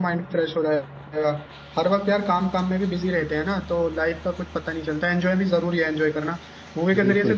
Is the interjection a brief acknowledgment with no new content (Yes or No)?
Yes